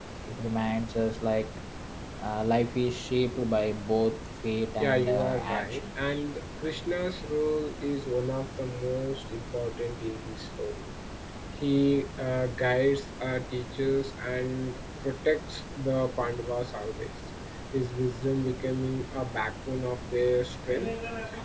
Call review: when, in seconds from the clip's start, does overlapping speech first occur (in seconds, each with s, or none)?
4.8 s